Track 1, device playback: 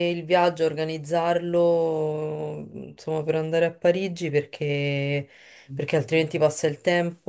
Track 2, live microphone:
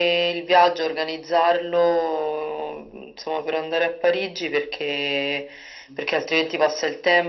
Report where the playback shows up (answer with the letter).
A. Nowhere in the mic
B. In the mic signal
B